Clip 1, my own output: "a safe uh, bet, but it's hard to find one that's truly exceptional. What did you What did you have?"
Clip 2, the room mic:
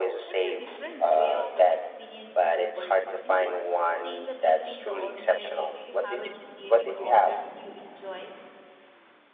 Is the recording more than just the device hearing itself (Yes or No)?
Yes